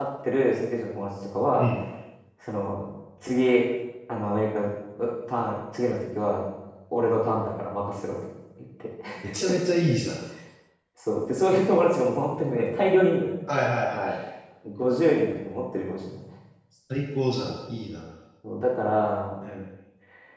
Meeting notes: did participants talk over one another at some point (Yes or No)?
No